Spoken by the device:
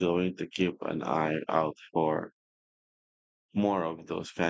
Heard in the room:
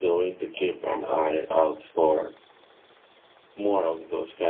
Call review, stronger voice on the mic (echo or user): echo